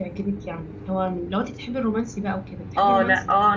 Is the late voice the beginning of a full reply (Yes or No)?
Yes